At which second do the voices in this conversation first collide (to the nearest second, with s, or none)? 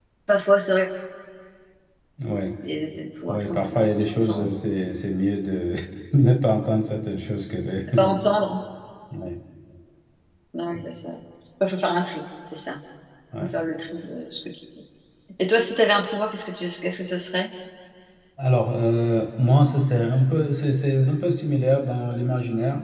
3 s